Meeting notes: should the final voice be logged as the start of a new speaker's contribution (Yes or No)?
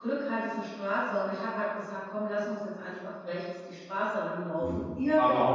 Yes